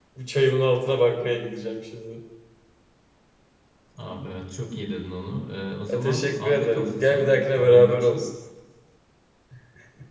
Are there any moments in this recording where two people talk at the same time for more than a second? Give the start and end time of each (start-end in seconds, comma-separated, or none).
5.9-8.2